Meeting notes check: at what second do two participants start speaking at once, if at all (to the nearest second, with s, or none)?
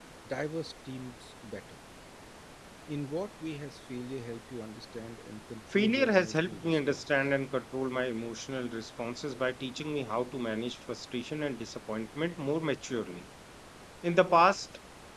6 s